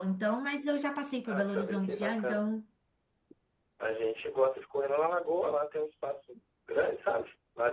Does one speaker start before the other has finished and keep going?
Yes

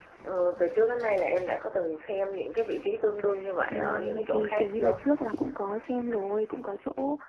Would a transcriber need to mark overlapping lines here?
Yes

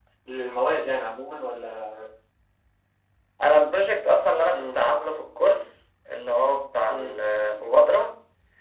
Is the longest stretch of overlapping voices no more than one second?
Yes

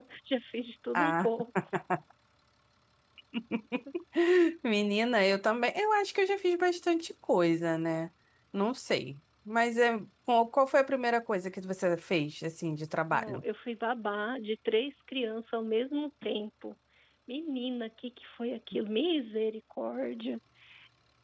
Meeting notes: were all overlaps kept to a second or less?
Yes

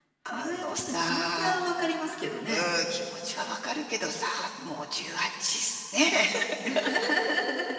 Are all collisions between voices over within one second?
No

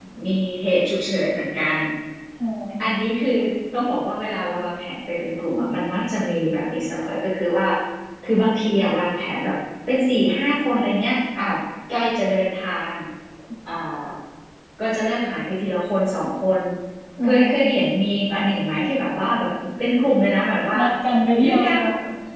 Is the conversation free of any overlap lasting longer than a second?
Yes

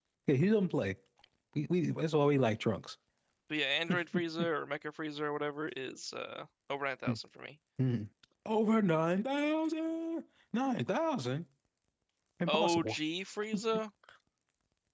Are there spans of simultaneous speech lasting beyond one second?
No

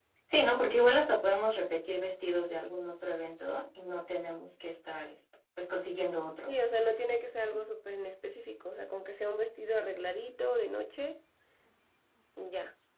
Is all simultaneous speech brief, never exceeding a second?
Yes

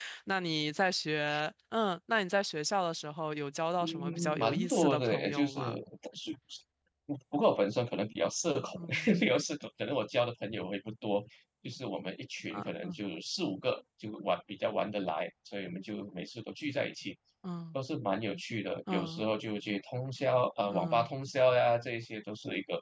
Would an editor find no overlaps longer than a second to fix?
No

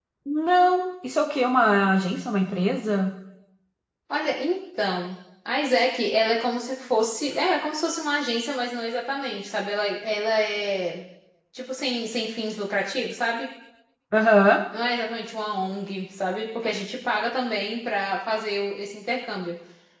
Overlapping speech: No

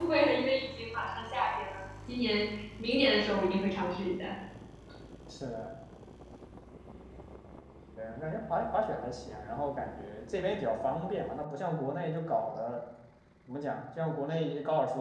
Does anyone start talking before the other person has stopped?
No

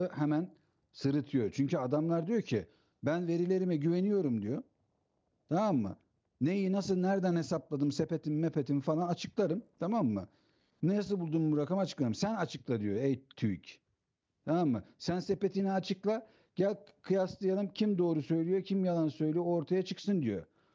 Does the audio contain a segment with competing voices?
No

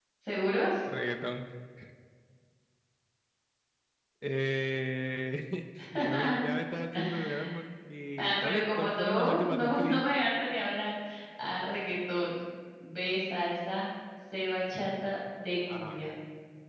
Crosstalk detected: Yes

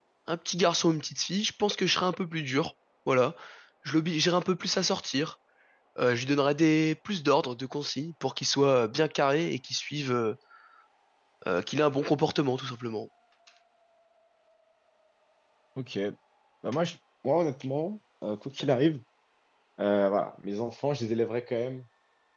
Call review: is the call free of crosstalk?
Yes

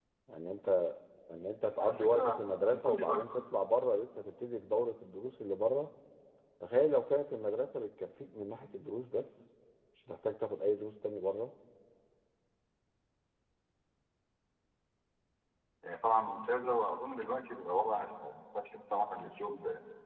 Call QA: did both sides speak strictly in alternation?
No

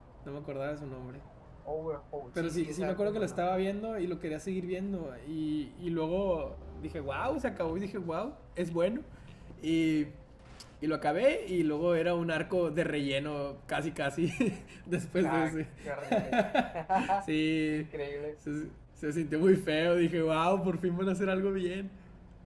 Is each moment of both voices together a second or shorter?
No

